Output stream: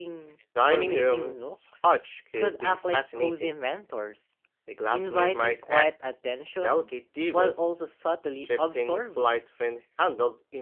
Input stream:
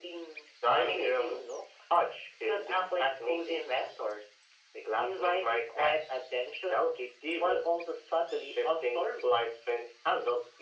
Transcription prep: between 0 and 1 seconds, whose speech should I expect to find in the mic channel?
echo only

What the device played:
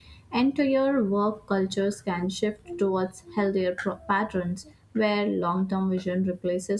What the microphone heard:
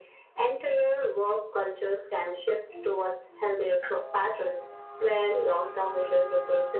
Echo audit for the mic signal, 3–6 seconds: echo only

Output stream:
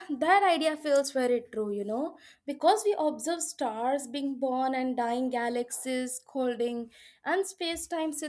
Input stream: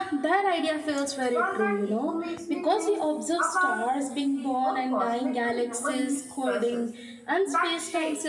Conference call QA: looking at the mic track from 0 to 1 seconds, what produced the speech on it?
echo only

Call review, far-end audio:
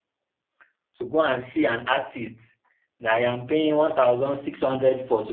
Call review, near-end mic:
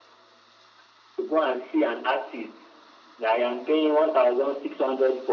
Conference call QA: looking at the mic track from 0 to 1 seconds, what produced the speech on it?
neither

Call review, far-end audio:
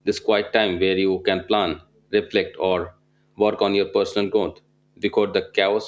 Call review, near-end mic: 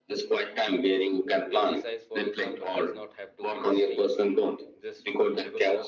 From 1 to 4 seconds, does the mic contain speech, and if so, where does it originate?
both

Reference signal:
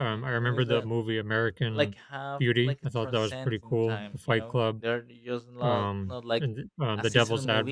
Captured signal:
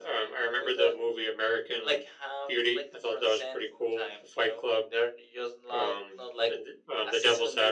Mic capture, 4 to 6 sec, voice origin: echo only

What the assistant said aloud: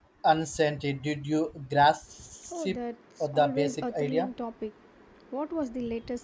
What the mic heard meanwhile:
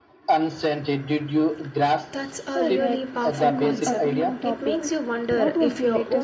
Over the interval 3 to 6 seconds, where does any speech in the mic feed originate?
both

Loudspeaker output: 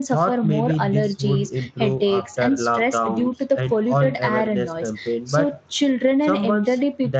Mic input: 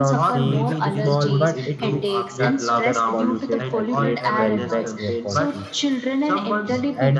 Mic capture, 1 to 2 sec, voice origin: both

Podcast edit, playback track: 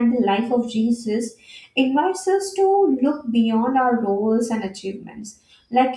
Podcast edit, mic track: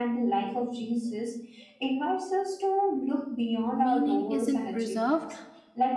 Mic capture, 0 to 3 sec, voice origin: echo only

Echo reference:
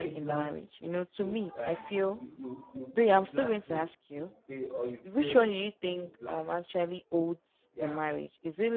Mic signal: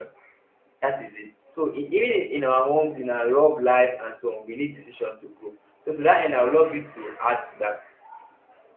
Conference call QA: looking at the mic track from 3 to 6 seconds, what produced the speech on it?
user only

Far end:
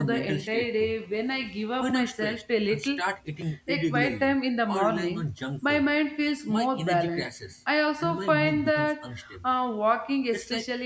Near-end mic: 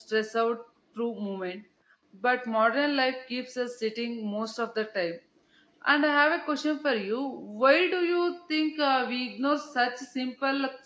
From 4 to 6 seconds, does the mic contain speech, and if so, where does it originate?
user only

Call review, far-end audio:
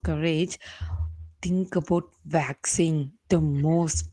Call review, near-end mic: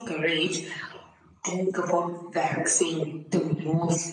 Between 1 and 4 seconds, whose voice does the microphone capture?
echo only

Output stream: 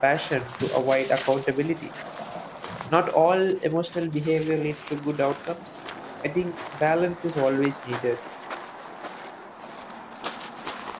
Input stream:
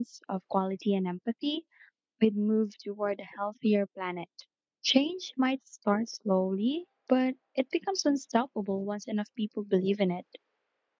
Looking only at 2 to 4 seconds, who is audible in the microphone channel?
user only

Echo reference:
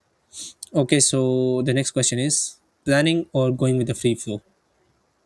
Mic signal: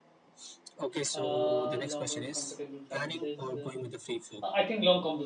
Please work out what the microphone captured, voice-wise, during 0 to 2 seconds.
both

